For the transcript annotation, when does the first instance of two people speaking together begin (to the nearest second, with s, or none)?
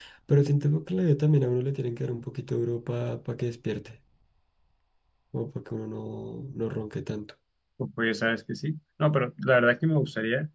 none